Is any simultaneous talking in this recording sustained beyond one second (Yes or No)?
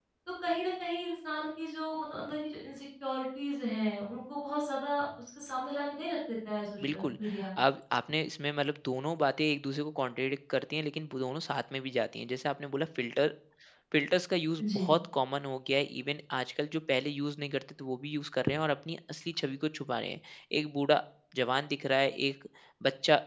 No